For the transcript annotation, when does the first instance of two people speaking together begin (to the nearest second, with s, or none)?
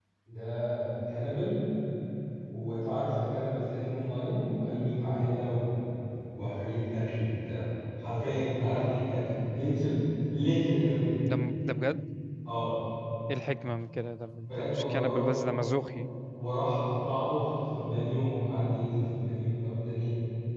14 s